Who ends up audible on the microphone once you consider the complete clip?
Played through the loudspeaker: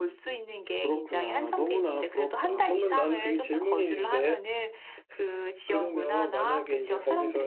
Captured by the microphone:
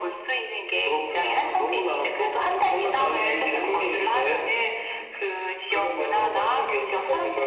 echo only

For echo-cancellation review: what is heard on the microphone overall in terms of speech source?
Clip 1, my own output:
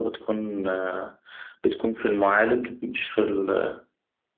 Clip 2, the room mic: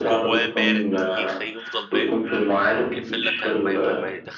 both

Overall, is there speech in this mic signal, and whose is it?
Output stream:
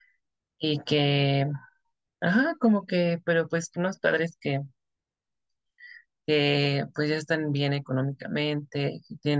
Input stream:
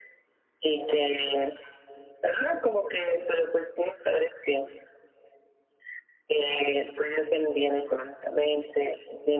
echo only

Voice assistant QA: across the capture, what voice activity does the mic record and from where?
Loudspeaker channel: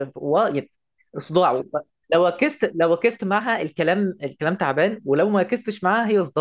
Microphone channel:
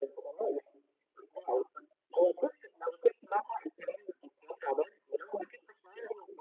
echo only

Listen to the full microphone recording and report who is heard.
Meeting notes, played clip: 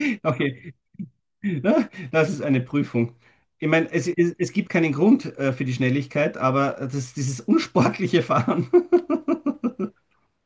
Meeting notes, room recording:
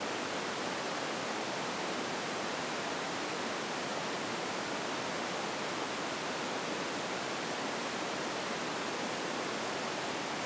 neither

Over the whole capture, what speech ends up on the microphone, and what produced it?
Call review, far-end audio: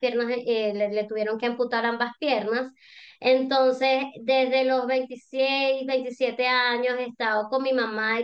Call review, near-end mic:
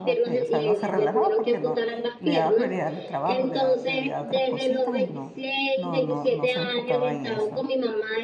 both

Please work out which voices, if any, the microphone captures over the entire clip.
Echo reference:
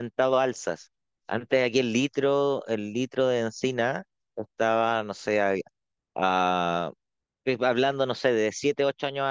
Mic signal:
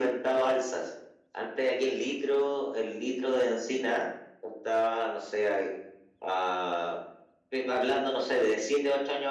echo only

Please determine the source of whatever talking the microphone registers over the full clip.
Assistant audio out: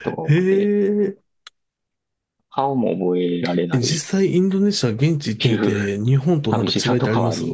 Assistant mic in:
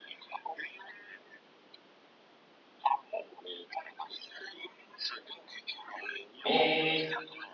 both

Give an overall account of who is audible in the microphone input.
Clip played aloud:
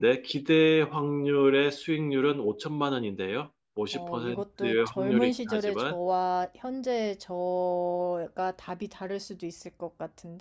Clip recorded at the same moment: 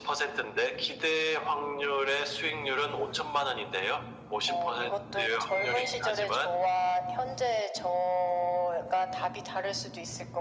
echo only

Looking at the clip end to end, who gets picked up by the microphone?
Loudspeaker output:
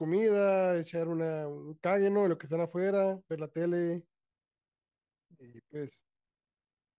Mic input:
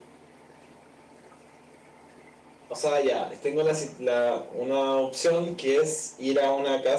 user only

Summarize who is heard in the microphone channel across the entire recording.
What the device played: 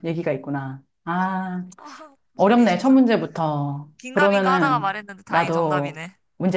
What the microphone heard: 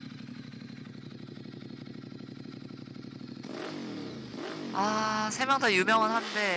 user only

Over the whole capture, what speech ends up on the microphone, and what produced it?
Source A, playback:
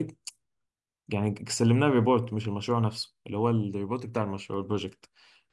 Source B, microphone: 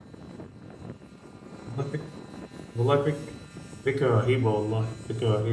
user only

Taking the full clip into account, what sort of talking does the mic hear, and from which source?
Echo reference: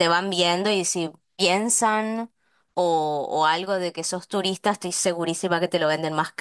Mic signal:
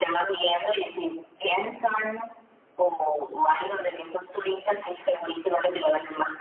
echo only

